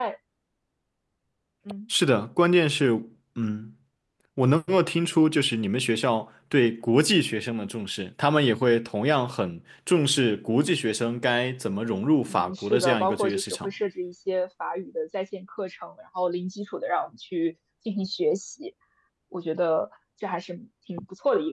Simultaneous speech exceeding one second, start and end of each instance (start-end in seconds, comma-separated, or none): 12.3-13.7